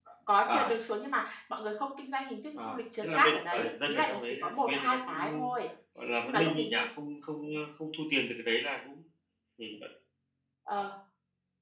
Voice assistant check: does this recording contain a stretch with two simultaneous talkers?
Yes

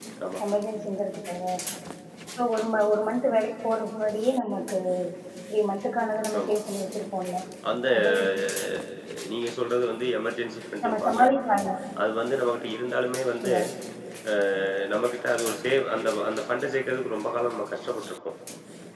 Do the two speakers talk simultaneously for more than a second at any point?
No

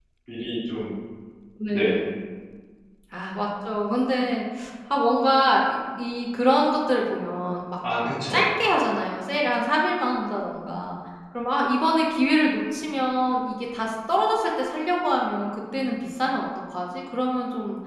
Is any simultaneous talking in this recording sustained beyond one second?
No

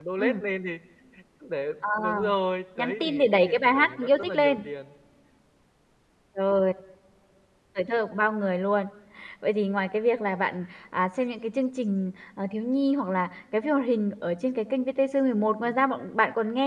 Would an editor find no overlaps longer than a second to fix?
No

